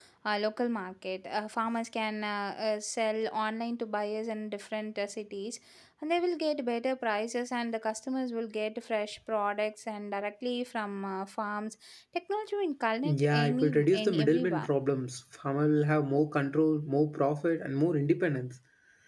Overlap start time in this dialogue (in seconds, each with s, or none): 13.0 s